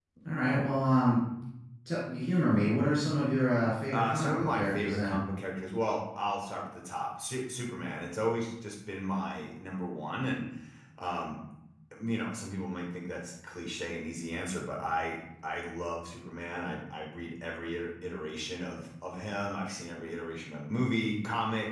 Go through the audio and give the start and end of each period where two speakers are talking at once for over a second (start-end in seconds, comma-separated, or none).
3.9-5.2